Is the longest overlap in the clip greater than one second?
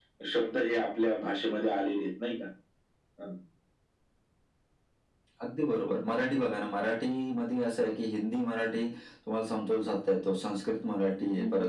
No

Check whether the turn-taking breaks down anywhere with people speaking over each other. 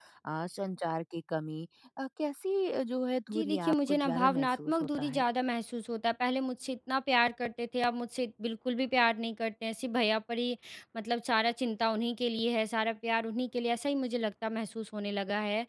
Yes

